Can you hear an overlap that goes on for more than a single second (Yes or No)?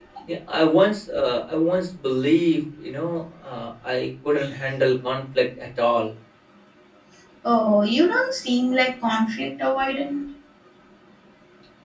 No